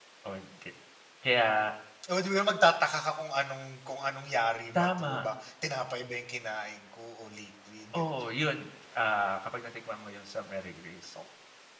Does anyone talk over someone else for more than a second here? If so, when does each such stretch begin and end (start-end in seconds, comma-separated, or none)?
none